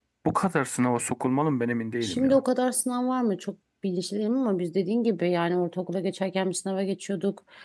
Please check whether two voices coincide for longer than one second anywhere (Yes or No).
No